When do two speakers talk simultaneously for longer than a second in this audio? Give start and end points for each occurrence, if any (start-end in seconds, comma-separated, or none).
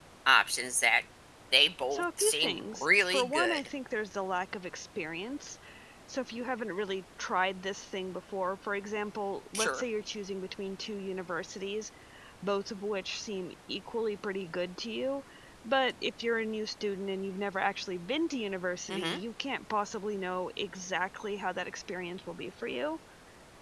1.9-3.7